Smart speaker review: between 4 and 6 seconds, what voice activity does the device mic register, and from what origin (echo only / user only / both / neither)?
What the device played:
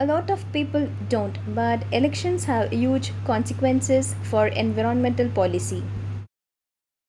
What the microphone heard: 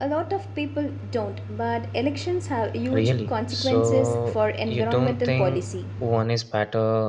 both